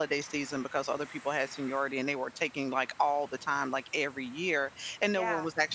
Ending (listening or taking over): listening